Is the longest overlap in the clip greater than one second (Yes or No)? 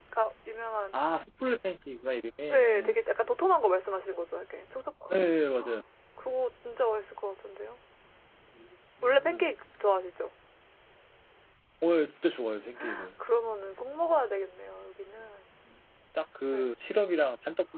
No